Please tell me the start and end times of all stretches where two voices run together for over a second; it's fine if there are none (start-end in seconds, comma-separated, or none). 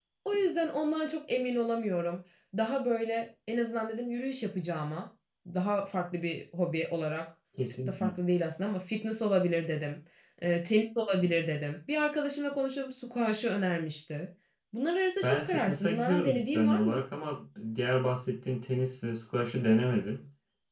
15.2-17.0